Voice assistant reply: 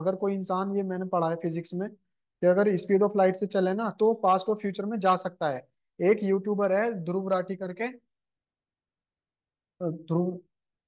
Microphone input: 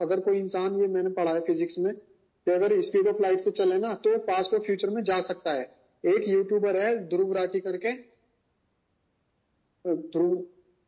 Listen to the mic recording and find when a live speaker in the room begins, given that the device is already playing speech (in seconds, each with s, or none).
none